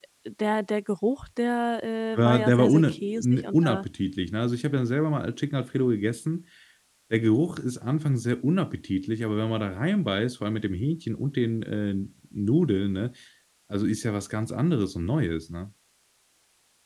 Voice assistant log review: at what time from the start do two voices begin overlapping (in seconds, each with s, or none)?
2.1 s